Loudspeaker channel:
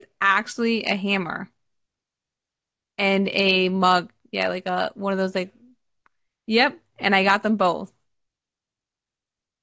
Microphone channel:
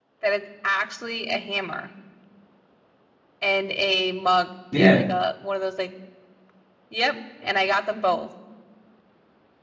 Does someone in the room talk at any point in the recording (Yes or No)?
Yes